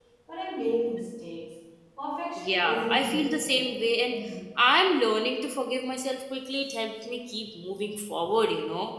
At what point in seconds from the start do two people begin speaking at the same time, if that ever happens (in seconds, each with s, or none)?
2.4 s